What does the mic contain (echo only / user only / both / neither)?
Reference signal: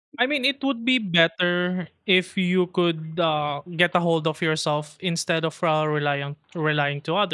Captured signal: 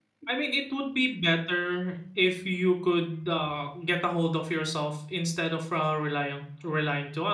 echo only